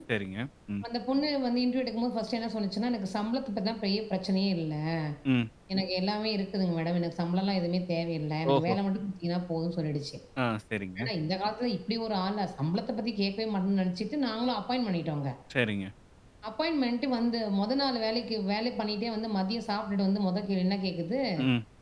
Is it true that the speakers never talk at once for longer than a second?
Yes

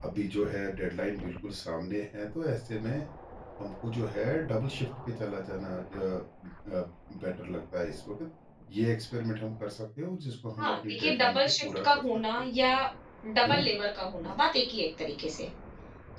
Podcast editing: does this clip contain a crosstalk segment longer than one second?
Yes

